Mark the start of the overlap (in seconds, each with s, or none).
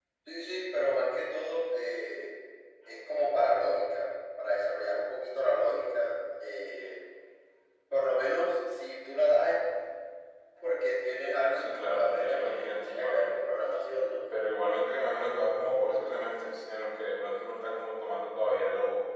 11.6 s